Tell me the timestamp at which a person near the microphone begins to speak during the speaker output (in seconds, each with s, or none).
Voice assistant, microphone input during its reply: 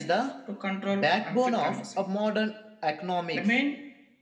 none